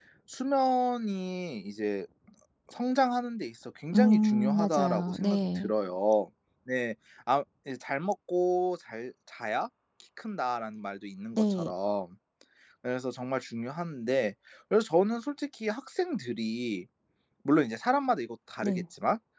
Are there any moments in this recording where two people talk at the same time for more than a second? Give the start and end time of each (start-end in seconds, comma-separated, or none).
3.9-5.7